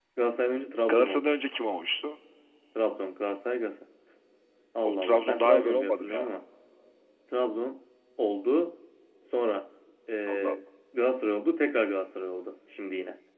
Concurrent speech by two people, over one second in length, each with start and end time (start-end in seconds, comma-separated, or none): 4.8-6.3